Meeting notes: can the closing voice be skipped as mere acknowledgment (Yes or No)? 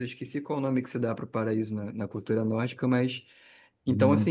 No